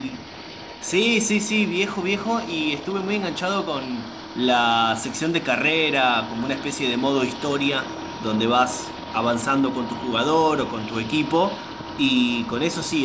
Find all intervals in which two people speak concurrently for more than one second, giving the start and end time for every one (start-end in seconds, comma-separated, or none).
none